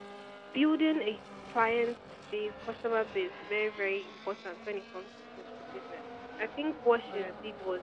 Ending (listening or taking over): listening